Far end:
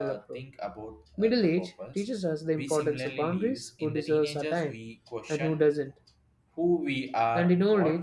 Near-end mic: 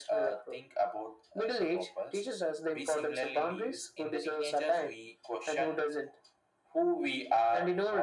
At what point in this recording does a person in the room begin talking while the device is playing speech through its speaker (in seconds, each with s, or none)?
none